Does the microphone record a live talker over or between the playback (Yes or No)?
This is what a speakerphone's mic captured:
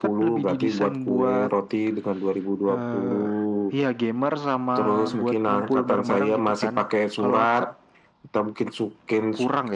No